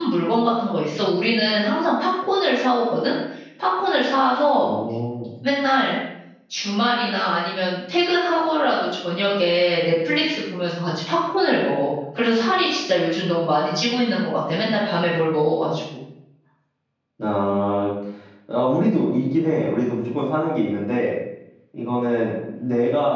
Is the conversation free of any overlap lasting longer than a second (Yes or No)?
Yes